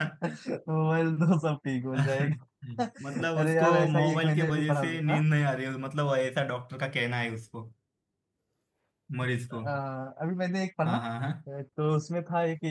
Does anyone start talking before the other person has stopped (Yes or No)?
Yes